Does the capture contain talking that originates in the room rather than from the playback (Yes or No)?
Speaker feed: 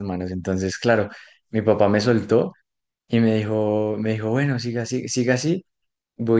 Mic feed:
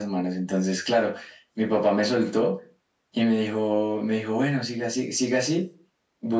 No